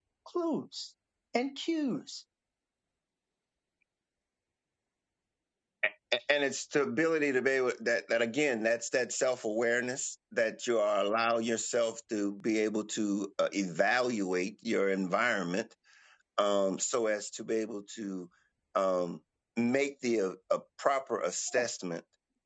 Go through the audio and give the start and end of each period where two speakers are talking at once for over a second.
none

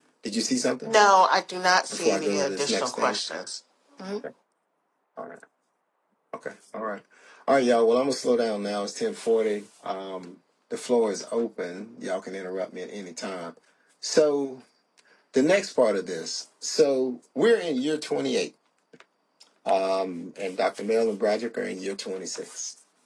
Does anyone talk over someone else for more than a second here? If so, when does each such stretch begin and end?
1.9-3.2

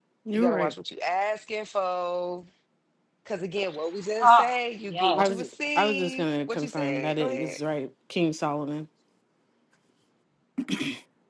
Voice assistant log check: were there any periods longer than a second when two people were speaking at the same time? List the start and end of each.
4.9-7.6

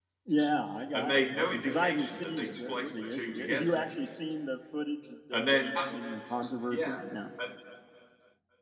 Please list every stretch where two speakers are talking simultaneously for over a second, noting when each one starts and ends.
0.9-3.8

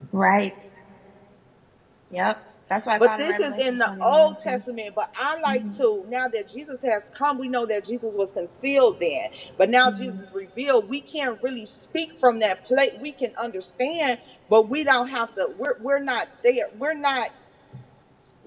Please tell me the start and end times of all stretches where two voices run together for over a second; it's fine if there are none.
3.0-4.6

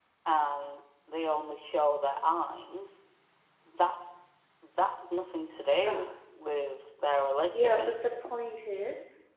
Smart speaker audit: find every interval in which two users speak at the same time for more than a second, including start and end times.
none

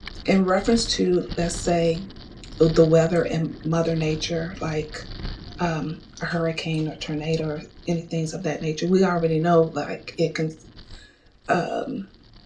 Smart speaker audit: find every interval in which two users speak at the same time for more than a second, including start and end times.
none

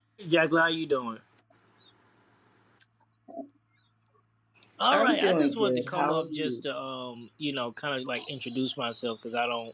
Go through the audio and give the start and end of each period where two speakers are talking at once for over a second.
4.9-6.6

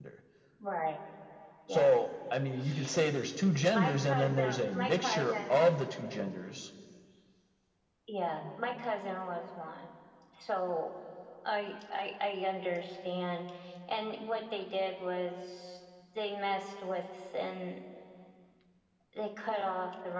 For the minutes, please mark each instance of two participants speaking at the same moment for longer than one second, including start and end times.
3.7-5.5

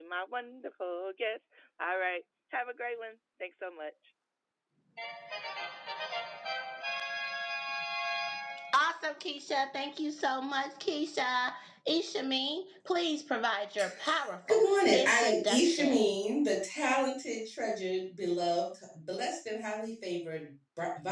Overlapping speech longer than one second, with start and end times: 14.5-16.1

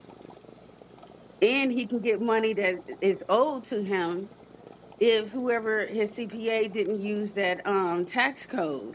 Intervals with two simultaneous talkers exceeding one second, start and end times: none

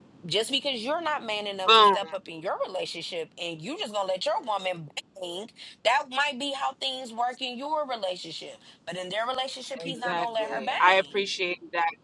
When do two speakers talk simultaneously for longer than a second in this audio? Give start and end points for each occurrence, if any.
9.8-11.2

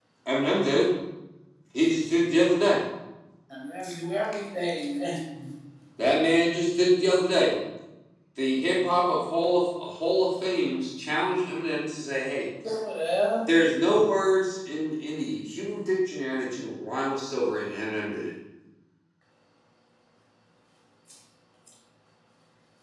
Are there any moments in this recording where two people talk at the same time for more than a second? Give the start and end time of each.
none

